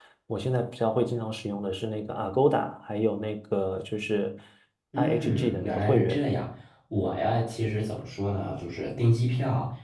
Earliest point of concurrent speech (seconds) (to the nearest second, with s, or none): 5 s